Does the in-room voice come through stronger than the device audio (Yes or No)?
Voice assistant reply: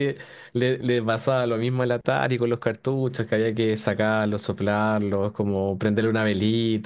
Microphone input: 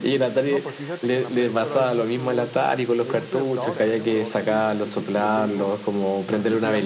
No